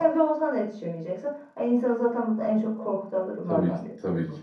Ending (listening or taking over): taking over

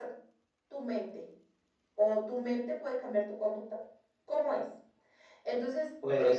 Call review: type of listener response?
listening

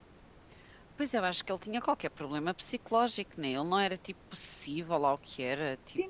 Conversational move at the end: taking over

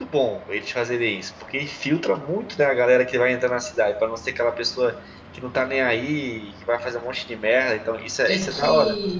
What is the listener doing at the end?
taking over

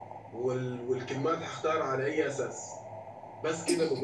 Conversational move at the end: listening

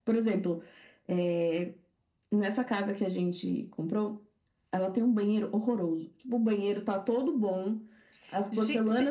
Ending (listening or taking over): listening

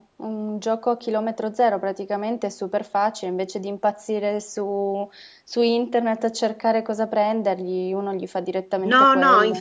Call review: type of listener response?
taking over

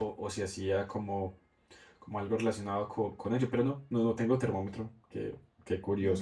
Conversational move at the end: taking over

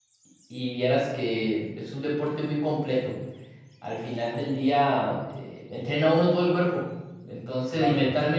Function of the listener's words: listening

